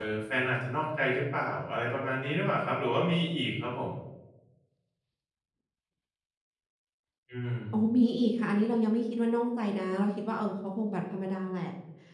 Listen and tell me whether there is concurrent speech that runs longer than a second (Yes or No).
No